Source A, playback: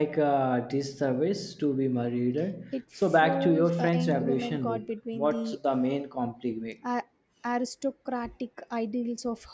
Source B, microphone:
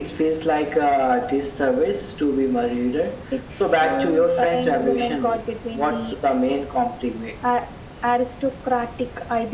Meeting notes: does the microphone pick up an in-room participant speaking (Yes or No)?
No